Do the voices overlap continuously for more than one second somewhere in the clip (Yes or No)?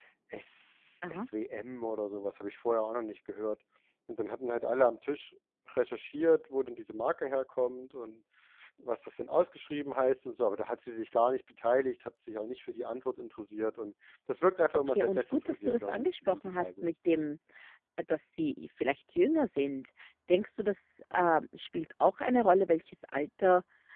Yes